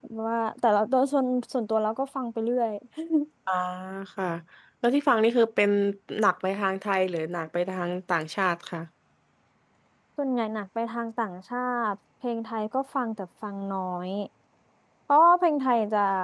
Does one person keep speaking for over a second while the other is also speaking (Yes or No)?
No